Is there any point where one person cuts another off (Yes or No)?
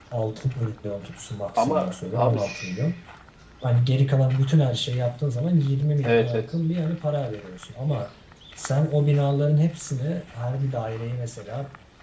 Yes